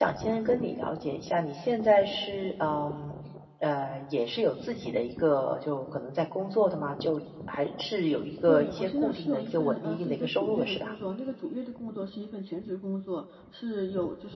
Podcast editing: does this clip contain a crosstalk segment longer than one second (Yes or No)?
Yes